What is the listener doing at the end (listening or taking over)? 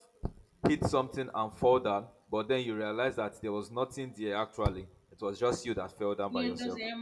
taking over